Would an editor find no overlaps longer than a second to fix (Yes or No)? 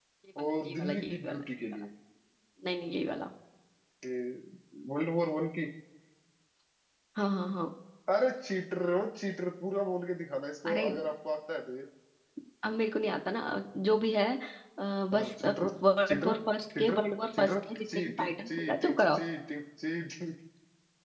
No